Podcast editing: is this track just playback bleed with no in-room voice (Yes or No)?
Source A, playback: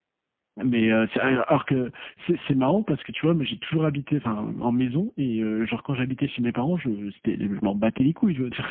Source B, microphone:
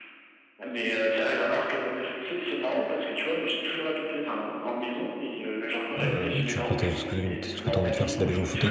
No